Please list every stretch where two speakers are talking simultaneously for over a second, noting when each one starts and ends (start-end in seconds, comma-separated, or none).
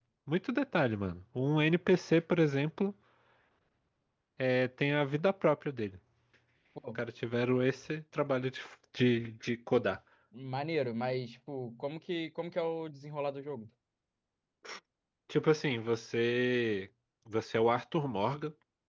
none